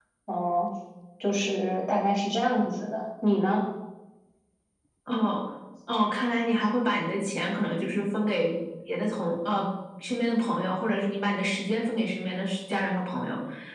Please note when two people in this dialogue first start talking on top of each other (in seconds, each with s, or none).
none